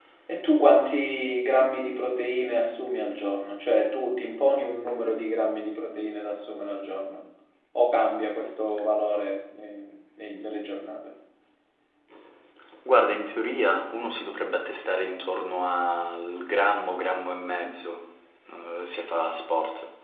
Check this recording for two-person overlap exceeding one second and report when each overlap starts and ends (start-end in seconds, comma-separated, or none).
none